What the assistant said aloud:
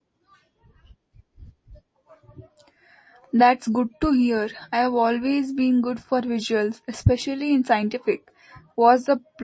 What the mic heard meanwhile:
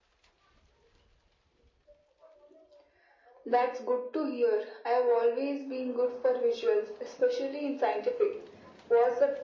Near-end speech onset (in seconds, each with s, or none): none